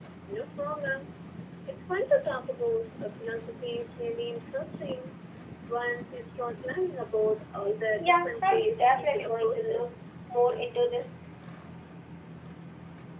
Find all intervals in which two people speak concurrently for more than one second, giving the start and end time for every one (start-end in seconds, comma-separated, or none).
8.0-9.8